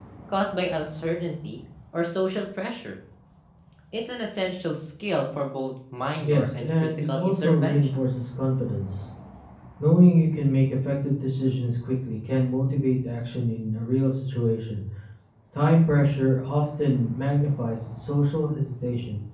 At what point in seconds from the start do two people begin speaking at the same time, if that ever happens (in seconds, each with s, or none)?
6.2 s